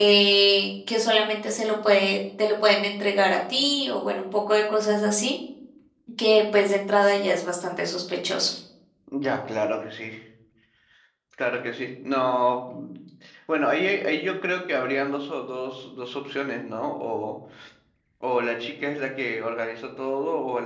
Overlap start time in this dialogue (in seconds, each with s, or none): none